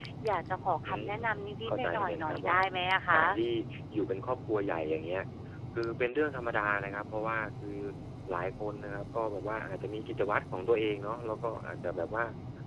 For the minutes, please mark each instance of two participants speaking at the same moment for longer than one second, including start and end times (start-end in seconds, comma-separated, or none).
0.8-2.5